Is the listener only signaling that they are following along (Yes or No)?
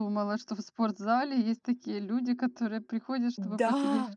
No